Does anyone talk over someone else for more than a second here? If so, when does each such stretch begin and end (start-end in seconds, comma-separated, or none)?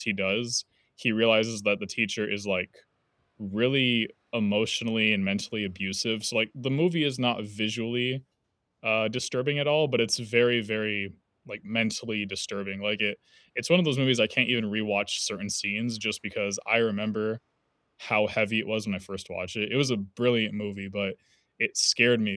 none